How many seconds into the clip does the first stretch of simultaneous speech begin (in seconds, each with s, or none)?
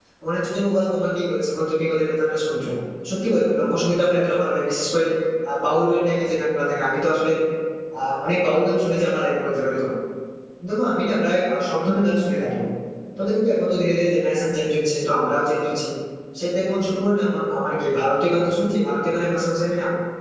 none